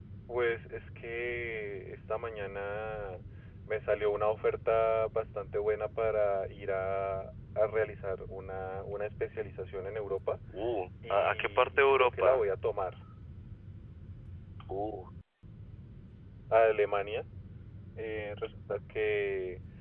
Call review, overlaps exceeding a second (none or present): present